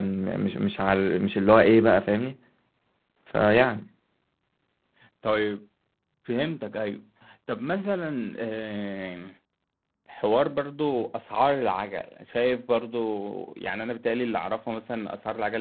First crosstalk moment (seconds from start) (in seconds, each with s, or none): none